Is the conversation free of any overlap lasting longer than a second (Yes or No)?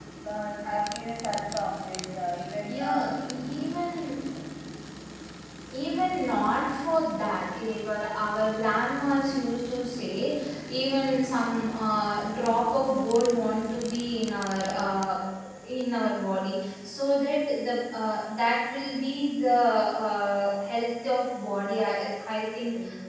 Yes